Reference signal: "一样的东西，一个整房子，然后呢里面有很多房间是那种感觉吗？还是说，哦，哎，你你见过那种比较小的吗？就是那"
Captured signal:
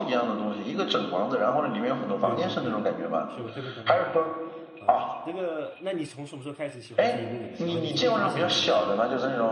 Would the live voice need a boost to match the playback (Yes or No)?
Yes